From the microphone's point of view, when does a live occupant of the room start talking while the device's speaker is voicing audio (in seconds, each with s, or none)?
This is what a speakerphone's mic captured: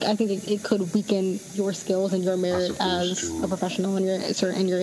2.5 s